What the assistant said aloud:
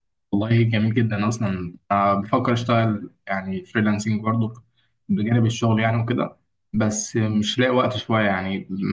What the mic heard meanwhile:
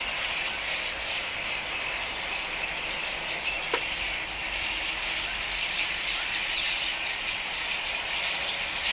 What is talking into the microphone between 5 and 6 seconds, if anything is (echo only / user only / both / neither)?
neither